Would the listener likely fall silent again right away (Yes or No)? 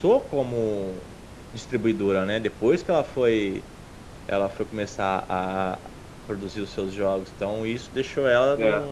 Yes